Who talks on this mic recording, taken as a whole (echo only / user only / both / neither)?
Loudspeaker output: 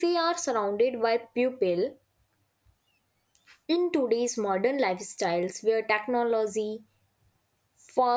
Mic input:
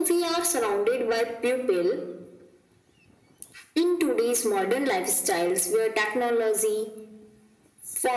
echo only